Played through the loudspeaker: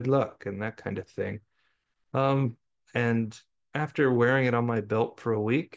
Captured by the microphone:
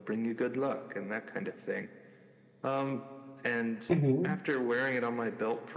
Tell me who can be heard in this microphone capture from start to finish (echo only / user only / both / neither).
both